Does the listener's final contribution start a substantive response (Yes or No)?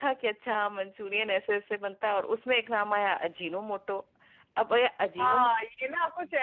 Yes